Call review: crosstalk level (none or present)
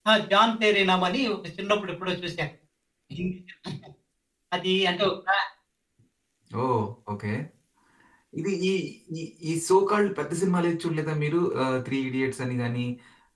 none